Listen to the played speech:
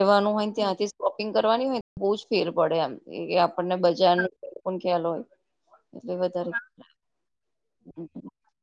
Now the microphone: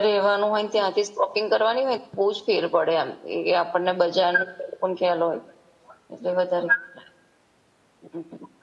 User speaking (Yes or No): No